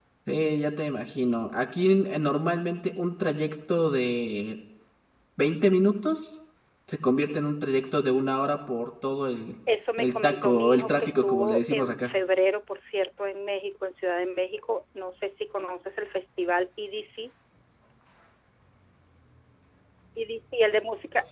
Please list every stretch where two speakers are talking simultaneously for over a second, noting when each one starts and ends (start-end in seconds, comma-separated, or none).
10.0-12.1